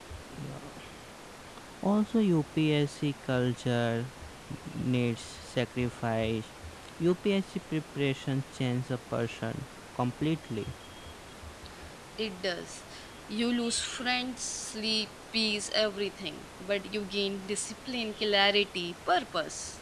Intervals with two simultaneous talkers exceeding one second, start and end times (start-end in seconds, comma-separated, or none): none